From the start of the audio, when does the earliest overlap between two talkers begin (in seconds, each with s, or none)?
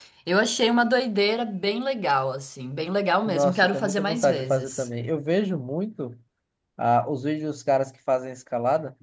3.3 s